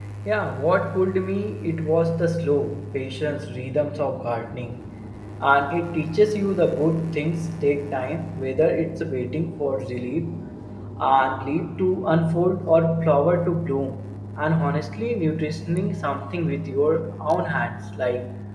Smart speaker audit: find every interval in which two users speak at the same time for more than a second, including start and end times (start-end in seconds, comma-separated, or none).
none